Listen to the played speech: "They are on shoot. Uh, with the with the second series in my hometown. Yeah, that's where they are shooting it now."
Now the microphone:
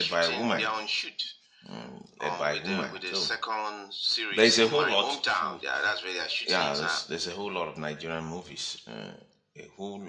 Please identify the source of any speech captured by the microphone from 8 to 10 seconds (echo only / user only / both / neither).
user only